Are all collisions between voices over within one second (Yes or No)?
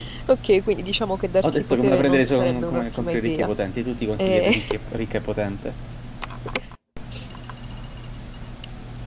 No